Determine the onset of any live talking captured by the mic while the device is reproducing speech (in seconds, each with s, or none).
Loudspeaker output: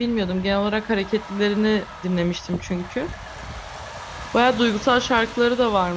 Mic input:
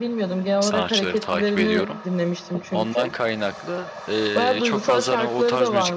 0.6 s